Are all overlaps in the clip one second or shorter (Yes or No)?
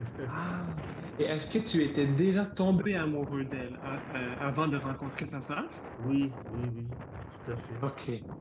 Yes